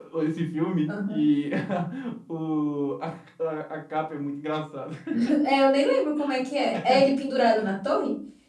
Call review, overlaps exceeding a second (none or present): none